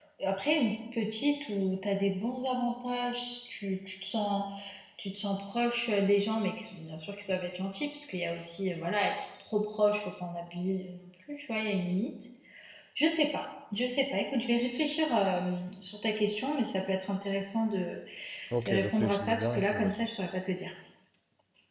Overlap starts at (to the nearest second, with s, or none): 19 s